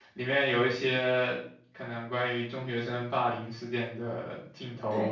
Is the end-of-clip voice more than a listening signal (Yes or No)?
Yes